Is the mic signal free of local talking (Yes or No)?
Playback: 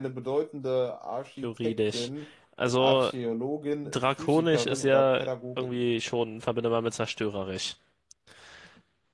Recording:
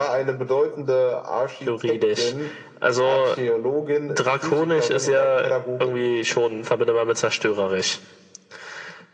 Yes